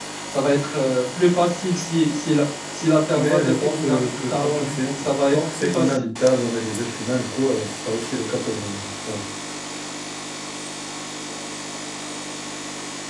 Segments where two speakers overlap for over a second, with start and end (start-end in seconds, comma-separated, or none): 3.1-6.1